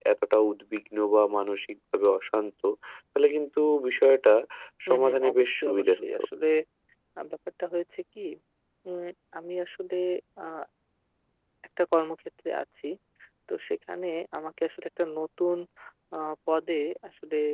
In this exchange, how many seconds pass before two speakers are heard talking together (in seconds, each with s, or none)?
4.9 s